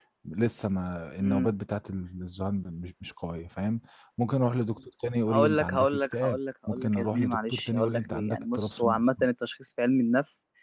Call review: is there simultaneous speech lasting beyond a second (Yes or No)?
Yes